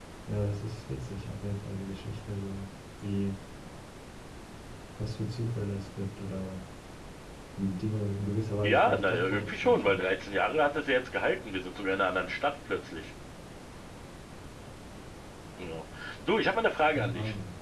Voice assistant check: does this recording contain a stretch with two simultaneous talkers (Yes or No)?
Yes